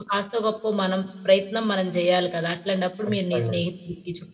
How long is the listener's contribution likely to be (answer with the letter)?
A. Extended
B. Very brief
B